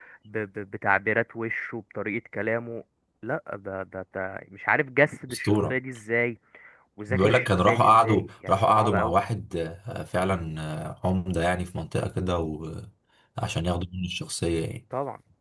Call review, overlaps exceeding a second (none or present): present